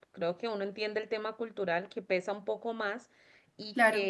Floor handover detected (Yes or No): No